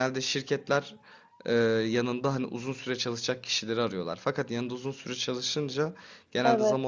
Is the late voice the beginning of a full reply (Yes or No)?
No